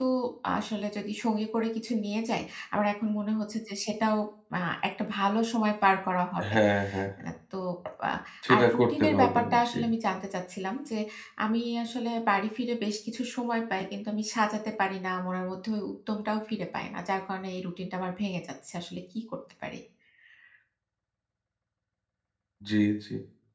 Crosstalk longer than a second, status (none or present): present